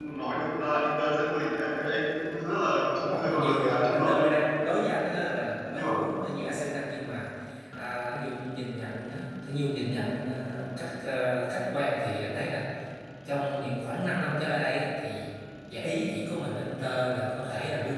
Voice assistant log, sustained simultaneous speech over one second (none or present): present